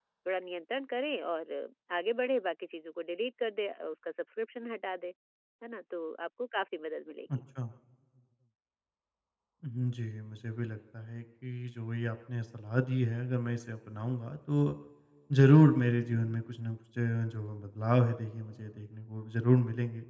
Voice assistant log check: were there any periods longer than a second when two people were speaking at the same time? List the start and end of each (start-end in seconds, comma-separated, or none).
none